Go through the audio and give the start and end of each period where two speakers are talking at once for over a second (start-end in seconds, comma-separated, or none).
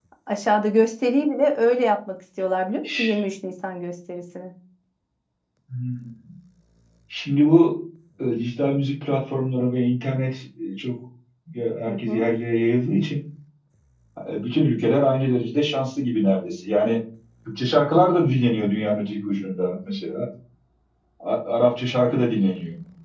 none